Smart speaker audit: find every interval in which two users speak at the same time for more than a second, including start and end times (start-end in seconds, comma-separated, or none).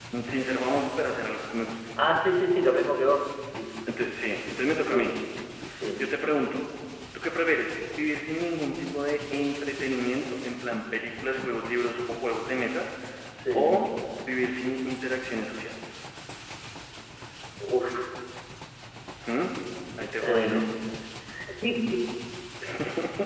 none